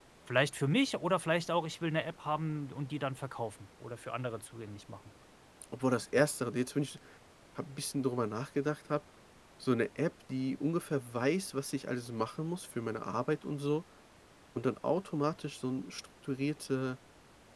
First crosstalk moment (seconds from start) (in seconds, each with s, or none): none